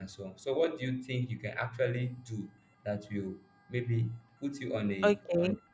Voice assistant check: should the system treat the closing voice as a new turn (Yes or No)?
Yes